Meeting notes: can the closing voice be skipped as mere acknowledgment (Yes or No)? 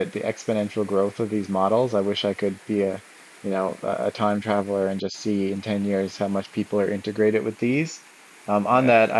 Yes